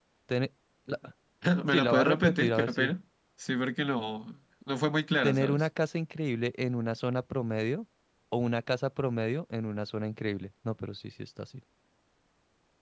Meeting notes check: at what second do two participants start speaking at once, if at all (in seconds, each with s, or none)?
1.7 s